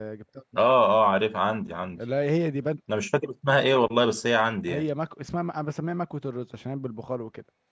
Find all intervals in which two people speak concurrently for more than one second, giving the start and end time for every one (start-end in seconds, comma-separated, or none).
none